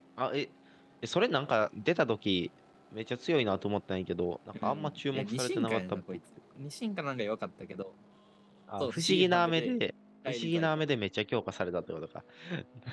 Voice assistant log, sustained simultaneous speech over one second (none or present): present